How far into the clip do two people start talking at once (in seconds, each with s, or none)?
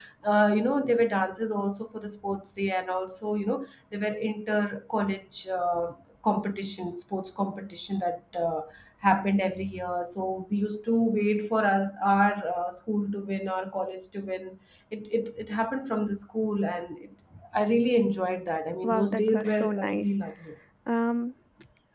18.8 s